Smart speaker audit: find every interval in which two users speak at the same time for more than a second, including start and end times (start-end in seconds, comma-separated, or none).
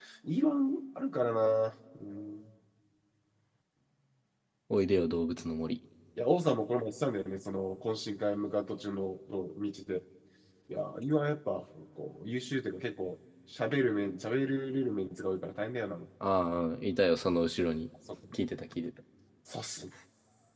none